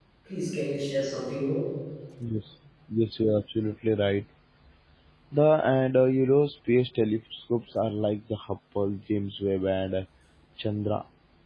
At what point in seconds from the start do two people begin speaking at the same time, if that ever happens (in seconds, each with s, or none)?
none